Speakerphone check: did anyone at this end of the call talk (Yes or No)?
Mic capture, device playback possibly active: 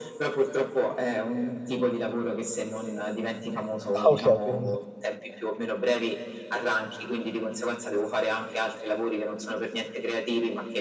Yes